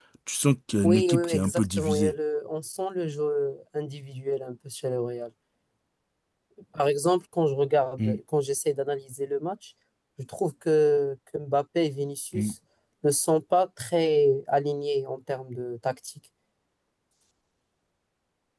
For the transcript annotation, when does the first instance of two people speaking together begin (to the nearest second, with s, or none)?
1 s